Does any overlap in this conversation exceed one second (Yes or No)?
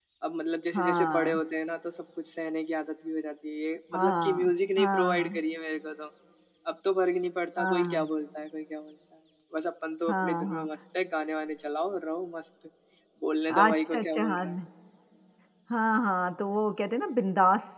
Yes